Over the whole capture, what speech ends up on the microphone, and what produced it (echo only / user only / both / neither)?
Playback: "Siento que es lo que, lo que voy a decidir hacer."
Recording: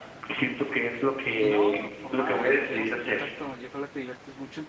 both